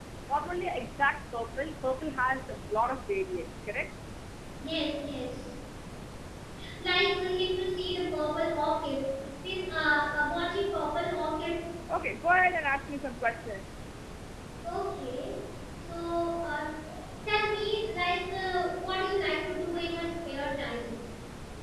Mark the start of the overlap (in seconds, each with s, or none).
none